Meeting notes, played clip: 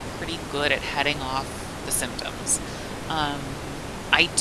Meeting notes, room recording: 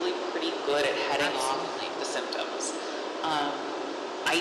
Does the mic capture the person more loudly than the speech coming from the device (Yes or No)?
No